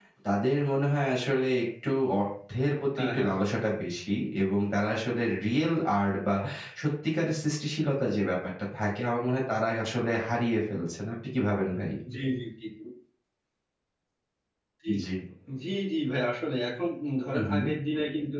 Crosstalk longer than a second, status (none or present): none